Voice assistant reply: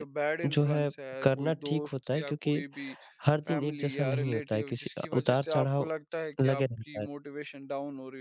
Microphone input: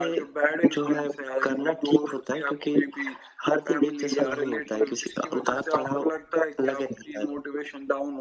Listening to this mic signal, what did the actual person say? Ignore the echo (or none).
none